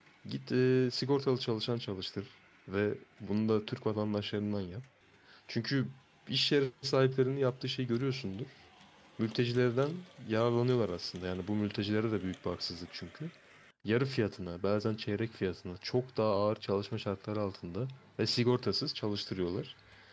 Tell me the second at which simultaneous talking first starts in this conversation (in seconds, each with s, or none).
none